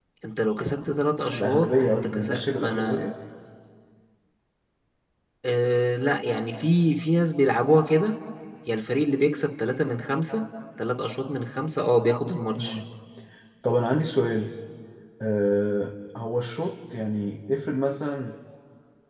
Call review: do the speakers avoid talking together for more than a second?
No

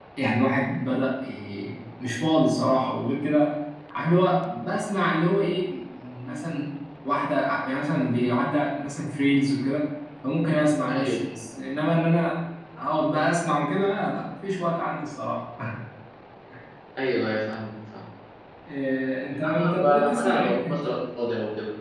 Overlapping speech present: Yes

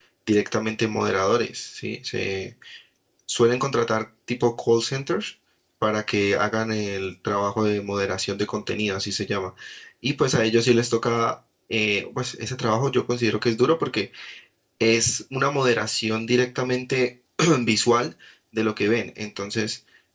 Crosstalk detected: No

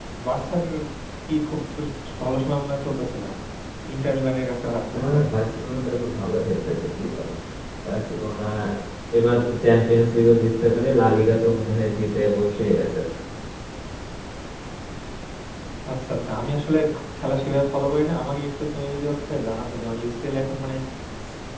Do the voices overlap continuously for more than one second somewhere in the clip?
No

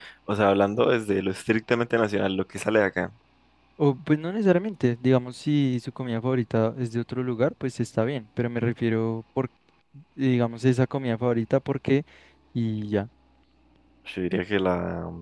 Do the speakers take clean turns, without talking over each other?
Yes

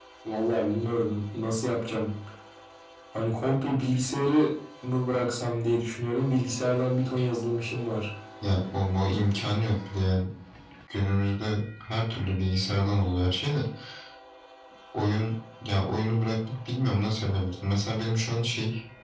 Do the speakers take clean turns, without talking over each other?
Yes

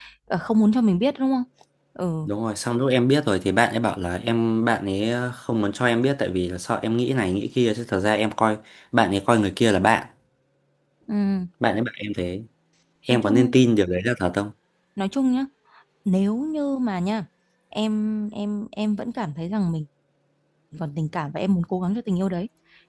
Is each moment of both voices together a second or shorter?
Yes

